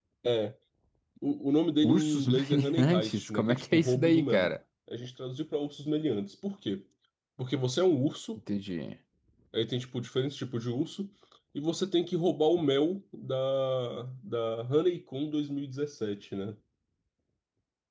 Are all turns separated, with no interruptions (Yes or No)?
No